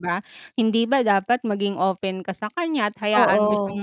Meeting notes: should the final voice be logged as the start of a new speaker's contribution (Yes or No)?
No